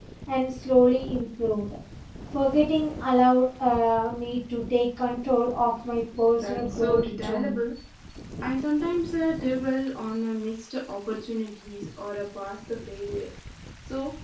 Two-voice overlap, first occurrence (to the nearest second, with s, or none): 6 s